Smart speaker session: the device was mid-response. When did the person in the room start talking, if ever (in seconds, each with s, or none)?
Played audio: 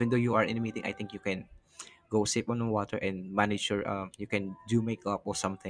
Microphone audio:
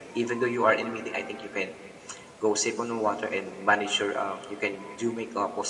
none